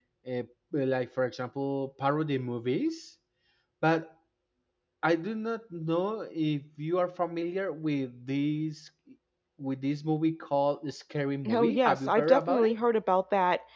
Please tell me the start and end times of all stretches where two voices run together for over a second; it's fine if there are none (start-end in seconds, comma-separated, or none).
11.5-12.7